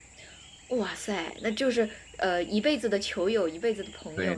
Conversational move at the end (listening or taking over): taking over